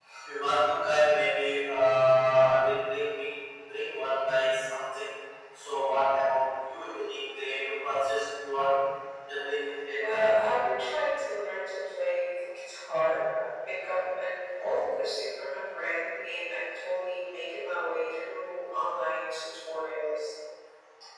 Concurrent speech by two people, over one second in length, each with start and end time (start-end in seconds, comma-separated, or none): none